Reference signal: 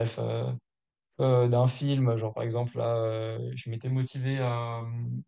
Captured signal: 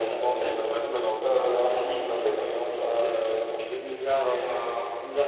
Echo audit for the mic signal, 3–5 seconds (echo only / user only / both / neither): both